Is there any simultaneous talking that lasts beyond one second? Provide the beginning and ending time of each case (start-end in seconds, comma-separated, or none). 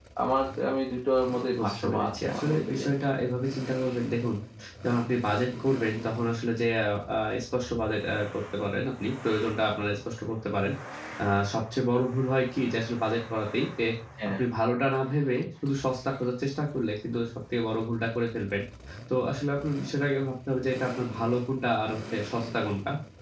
1.6-3.0